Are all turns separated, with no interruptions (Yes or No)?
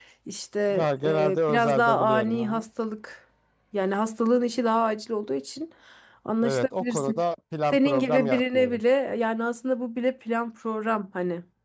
No